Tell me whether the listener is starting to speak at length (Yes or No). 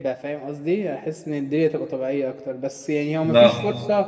No